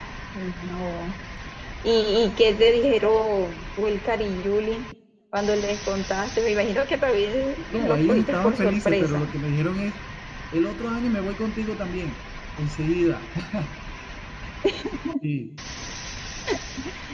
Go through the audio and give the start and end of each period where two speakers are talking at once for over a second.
7.7-9.2

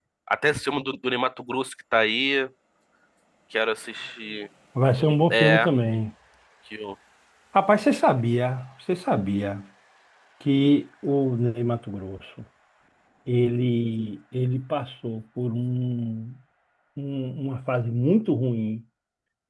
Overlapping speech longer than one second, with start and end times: none

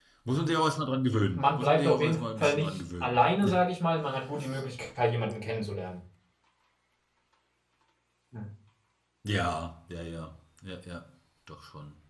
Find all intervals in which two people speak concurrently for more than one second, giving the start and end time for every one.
1.3-3.2

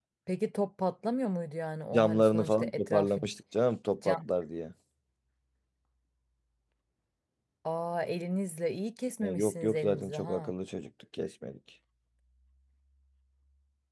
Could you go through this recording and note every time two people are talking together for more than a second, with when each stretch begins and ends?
1.9-3.2, 9.2-10.5

